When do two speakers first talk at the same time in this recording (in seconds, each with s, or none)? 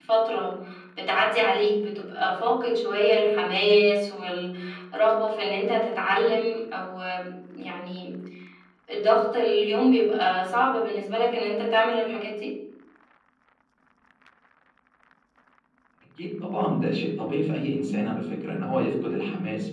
none